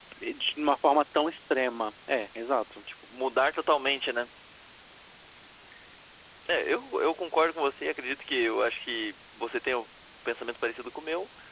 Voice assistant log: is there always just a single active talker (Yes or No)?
Yes